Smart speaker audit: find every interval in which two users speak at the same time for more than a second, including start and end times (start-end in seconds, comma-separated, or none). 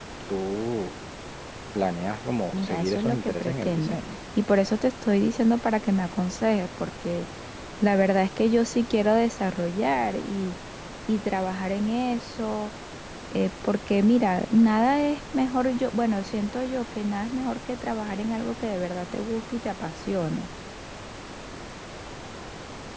2.5-4.0